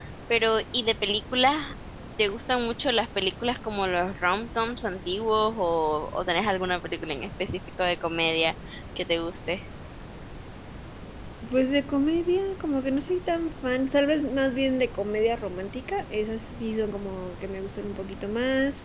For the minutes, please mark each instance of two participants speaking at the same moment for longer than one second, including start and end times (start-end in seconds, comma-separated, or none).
none